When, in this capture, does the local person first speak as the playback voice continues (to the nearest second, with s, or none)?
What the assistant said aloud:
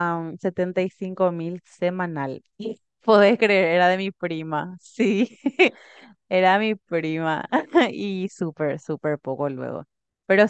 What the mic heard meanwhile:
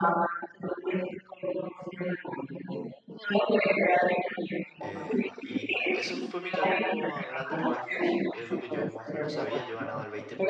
5 s